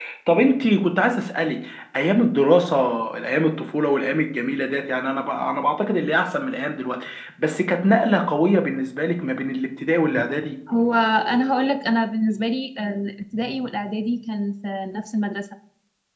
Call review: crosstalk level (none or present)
none